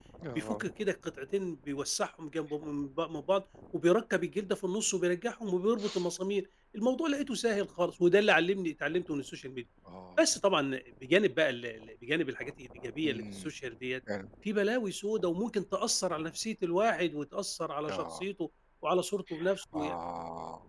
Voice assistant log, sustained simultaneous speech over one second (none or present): none